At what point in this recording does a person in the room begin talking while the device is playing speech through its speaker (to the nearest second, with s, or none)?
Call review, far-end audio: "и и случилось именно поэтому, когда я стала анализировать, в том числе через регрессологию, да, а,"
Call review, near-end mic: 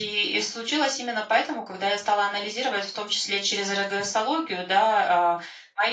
none